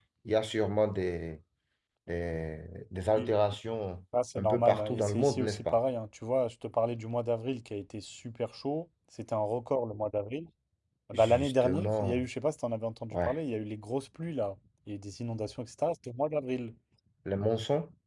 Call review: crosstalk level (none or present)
present